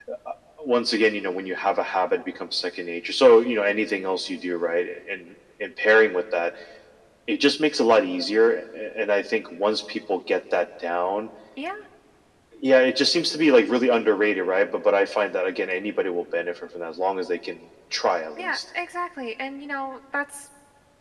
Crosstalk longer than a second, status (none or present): none